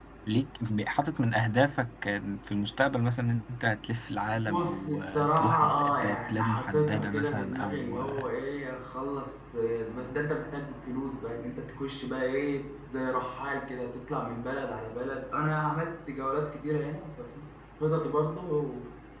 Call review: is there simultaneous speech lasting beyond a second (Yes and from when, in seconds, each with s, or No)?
Yes, from 4.3 s